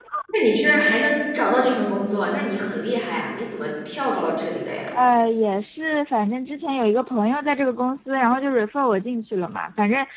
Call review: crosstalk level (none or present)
none